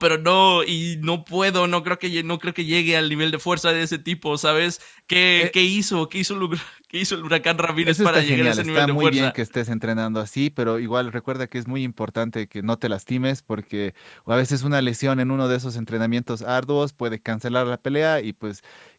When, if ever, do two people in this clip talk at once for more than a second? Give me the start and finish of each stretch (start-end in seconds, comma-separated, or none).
7.9-9.3